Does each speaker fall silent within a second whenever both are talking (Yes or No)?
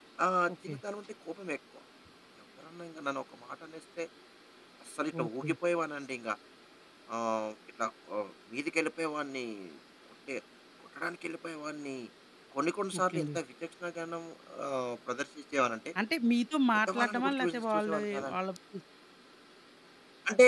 No